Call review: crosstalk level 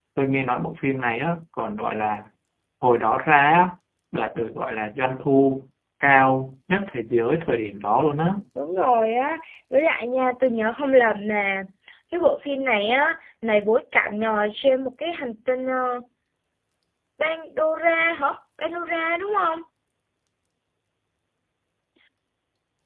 none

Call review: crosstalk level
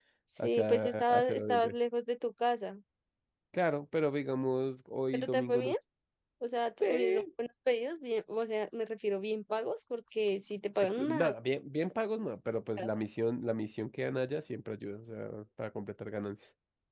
present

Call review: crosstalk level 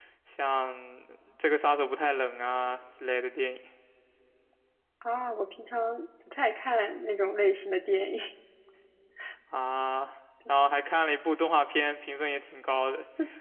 none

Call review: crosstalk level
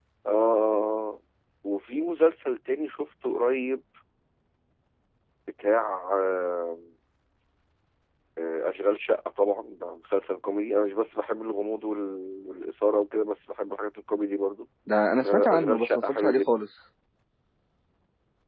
present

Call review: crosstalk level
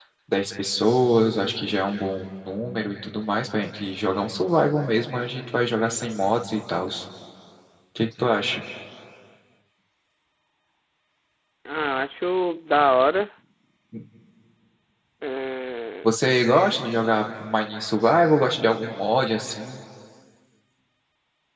none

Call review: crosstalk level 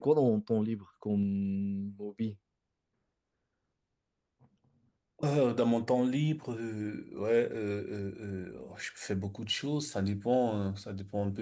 none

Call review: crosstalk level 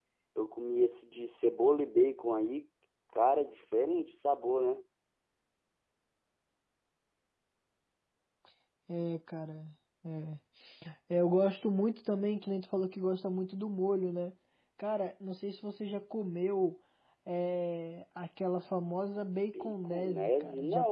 present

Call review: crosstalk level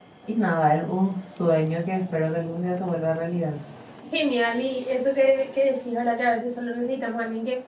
none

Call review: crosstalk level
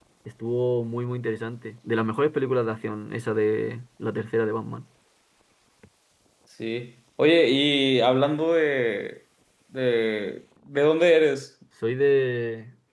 none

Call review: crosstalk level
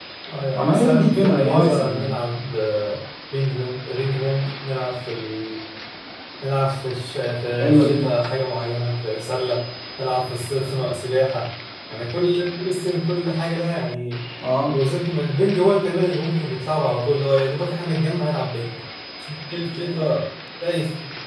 present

